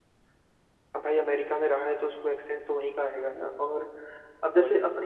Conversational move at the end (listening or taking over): listening